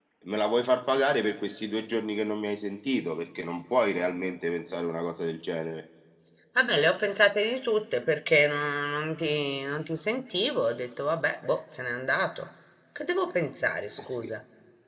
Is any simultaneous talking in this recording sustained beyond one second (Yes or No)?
No